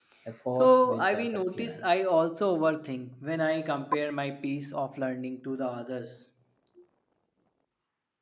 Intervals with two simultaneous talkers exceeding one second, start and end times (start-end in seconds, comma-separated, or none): 0.6-1.9